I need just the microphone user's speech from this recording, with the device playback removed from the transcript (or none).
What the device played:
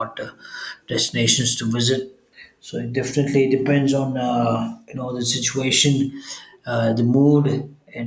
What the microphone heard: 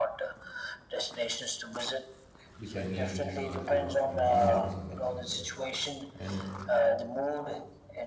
which I need, which is solitude or- and human presence, as I said. And